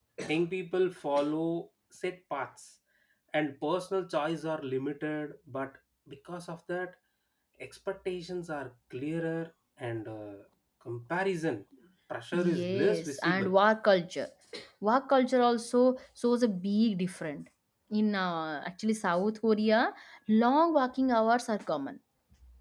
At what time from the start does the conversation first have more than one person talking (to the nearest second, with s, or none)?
12 s